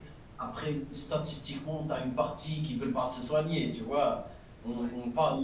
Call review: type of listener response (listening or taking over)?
listening